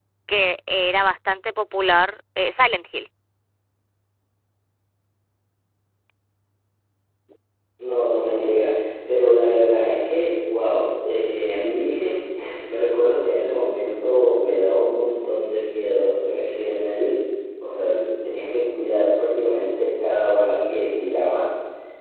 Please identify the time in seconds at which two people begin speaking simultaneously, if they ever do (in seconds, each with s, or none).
none